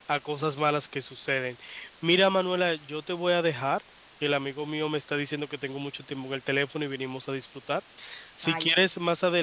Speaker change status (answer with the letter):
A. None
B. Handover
A